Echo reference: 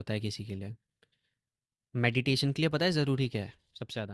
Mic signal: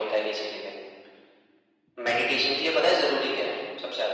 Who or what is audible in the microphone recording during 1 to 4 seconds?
echo only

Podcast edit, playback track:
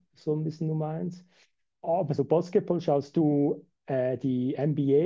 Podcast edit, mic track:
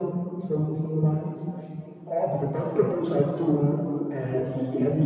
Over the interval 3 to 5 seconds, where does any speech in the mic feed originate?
echo only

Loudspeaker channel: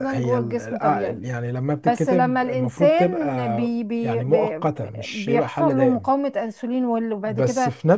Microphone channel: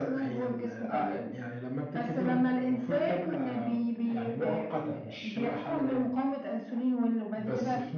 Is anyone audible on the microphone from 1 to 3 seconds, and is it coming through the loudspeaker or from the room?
echo only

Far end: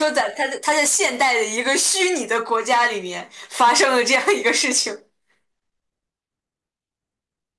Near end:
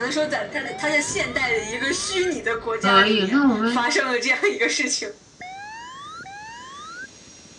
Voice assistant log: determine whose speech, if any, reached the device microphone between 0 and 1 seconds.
echo only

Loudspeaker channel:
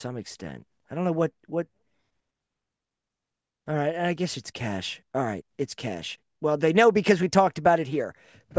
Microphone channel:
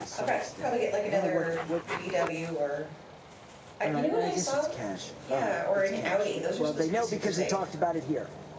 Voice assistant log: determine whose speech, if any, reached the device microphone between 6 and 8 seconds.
both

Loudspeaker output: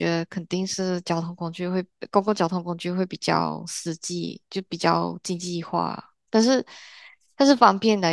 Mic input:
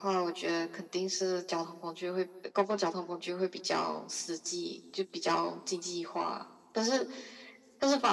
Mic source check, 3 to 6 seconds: echo only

